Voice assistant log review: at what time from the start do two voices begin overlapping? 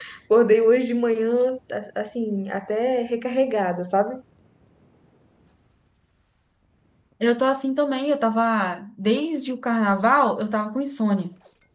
none

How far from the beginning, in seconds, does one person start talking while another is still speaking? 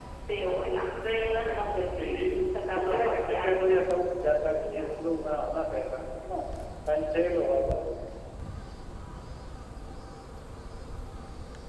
1.2 s

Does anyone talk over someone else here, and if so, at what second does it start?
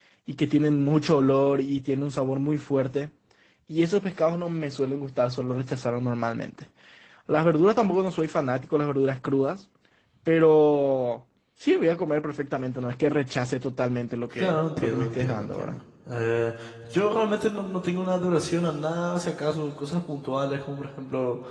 14.4 s

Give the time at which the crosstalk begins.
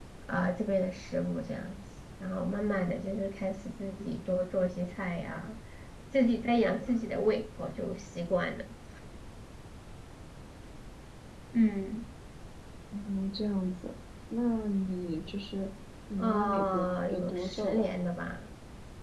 16.2 s

